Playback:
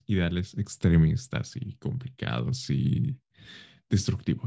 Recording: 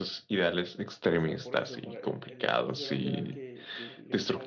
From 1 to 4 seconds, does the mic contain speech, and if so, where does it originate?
both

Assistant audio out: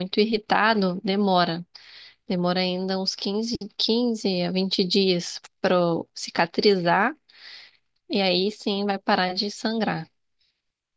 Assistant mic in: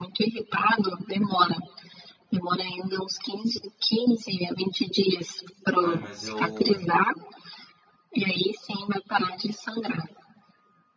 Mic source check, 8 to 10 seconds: echo only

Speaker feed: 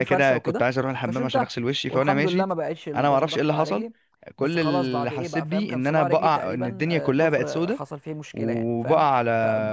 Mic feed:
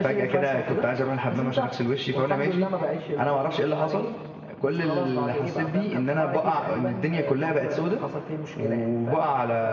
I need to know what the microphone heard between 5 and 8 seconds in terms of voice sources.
echo only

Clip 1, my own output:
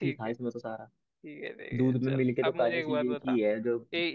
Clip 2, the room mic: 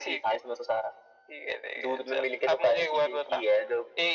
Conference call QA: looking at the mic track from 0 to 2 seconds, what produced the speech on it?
echo only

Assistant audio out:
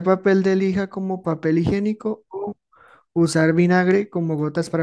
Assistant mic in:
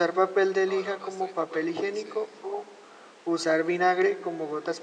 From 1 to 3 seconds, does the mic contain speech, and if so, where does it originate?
both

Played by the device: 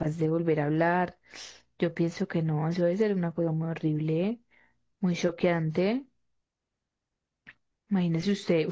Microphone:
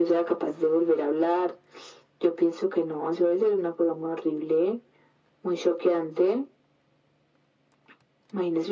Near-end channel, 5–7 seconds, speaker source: echo only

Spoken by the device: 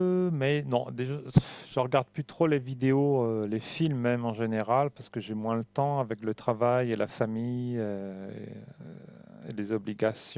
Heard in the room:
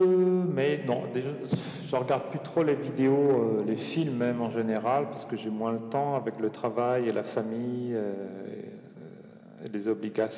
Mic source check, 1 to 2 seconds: echo only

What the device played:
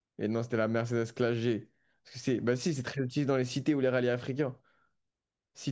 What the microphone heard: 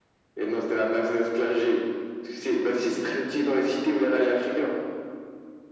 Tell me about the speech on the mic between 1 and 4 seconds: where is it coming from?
echo only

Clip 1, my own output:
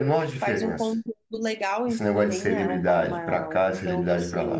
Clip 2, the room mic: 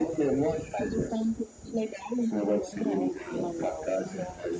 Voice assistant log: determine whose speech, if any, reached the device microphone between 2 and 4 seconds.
echo only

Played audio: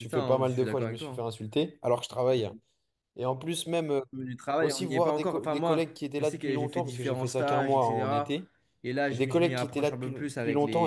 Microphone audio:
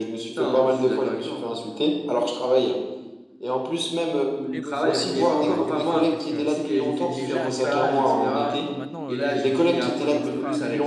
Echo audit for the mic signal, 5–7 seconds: both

